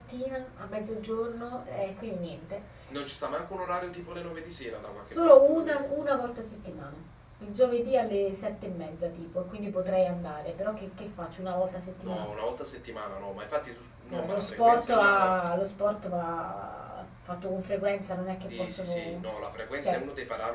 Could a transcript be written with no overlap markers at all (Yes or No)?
No